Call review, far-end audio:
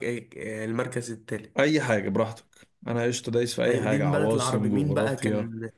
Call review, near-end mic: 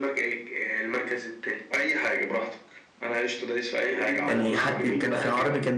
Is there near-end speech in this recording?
Yes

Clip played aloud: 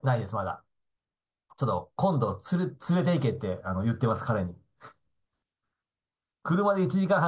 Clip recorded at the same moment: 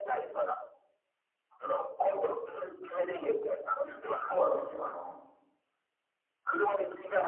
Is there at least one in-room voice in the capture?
Yes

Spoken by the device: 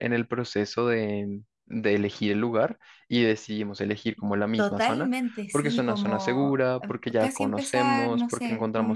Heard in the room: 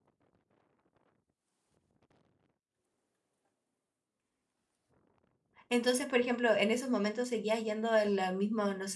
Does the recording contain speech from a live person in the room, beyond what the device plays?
Yes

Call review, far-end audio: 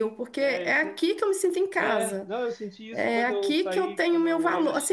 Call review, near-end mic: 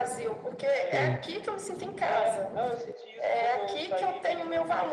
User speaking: Yes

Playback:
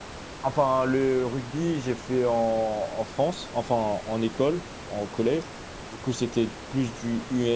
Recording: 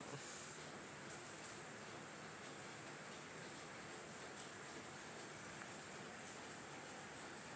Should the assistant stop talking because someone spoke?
No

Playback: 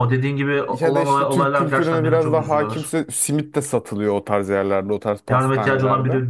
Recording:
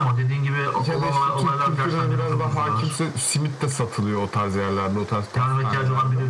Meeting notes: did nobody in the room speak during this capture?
Yes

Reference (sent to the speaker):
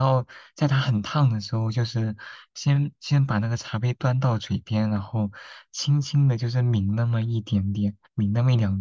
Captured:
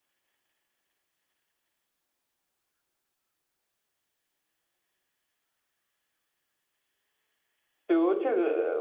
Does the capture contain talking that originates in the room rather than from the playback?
Yes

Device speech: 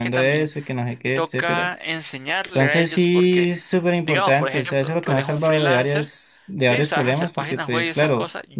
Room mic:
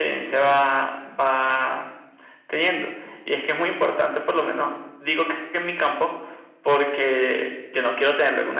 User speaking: Yes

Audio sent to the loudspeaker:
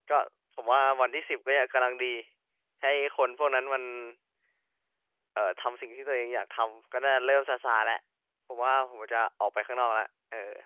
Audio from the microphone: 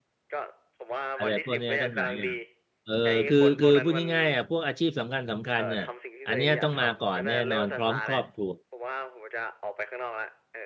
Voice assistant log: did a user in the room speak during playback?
Yes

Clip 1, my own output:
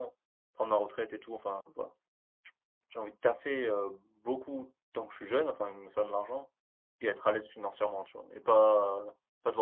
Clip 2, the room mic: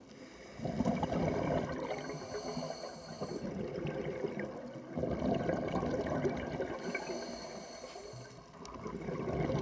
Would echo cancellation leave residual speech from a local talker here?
No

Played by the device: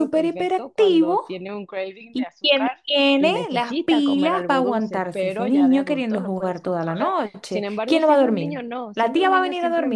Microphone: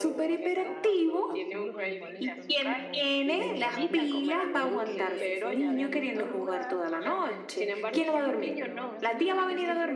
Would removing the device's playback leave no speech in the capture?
No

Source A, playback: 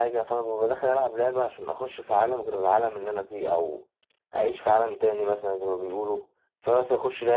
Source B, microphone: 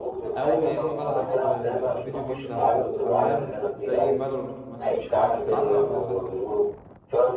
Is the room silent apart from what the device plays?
No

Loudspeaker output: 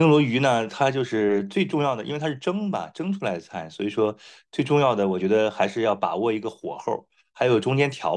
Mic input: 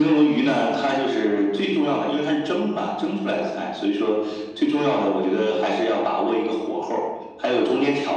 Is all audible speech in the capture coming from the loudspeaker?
Yes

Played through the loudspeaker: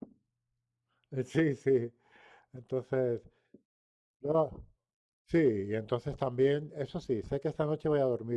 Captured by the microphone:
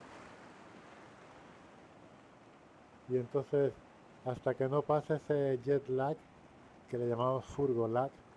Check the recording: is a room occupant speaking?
Yes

